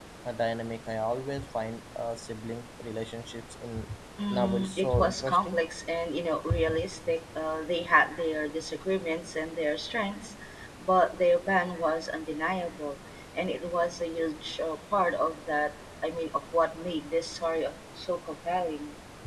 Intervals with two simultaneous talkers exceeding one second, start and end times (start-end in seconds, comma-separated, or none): 4.3-5.6